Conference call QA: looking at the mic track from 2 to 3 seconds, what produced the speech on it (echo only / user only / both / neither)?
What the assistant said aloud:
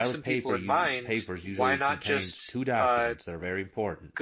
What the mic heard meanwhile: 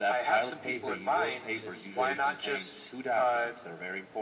both